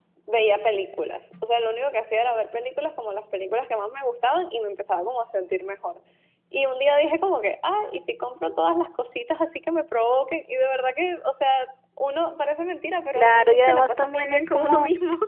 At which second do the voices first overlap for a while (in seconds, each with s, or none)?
13.2 s